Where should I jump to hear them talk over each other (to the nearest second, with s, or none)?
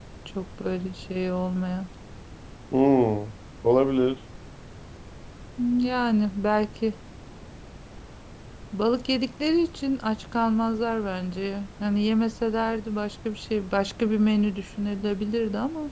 none